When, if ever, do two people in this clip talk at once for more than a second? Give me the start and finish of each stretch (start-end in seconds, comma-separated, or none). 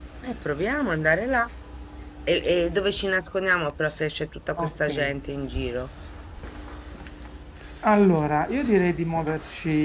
none